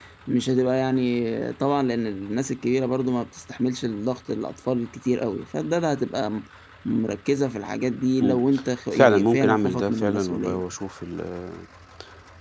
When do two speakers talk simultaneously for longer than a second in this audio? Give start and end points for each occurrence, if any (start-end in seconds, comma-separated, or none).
8.9-10.6